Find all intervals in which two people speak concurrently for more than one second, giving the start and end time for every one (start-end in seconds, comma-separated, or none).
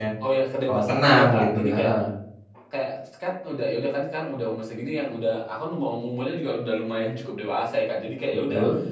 0.7-1.9